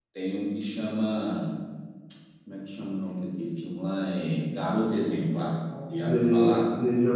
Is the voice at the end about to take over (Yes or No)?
Yes